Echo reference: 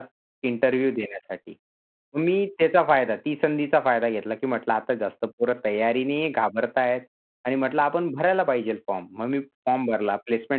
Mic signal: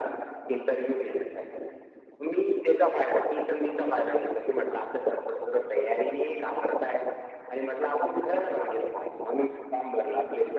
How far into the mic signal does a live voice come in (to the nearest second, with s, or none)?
none